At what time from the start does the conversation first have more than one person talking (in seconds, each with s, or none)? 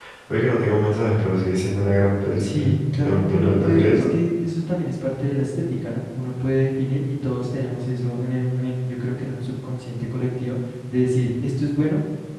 2.4 s